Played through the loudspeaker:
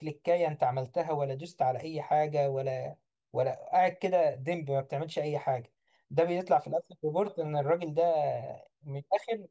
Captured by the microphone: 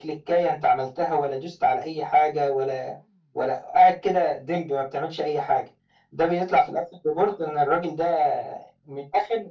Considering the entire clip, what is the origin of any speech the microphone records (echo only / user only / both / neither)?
echo only